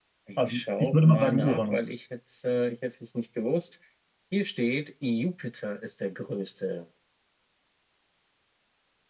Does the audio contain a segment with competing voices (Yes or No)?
Yes